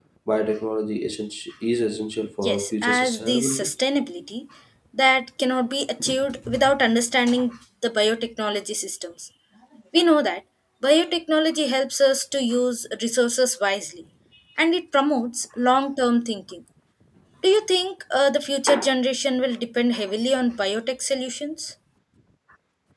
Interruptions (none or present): present